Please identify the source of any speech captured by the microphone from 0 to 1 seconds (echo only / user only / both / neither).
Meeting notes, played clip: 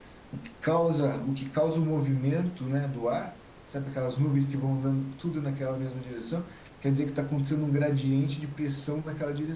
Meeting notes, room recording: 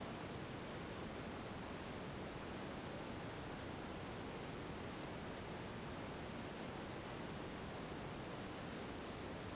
neither